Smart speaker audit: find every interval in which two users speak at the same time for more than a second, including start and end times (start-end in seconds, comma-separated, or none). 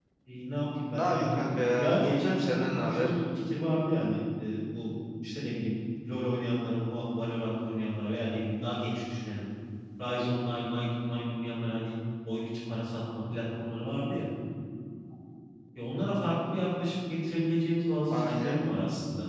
0.9-3.1